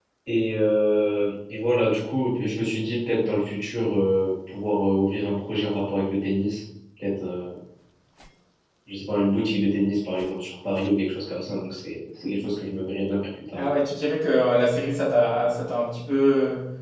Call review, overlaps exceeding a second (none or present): none